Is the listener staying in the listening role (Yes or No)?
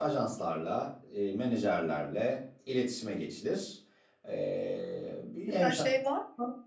No